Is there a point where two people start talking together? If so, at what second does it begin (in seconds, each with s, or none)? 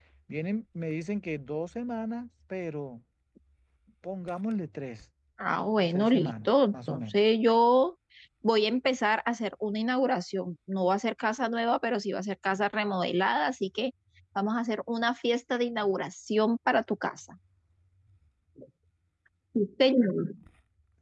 5.9 s